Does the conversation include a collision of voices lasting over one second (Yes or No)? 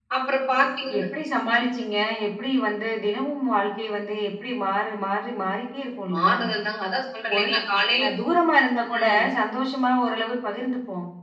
No